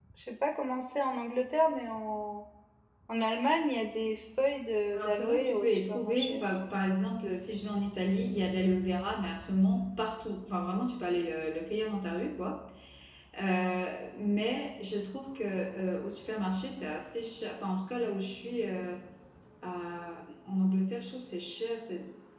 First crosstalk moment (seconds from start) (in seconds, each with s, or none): 4.9 s